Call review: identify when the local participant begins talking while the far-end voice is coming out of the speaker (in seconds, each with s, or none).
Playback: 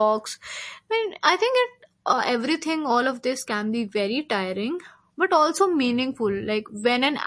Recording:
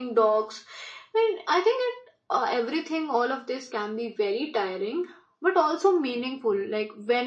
none